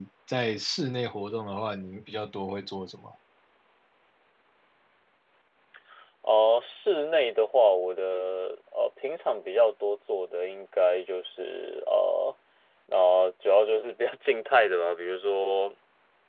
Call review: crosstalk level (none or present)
none